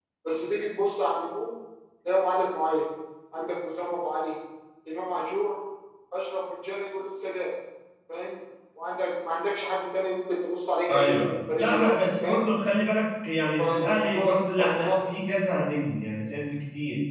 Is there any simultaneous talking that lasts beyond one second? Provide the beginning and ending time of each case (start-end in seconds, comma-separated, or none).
10.9-12.5, 13.6-15.0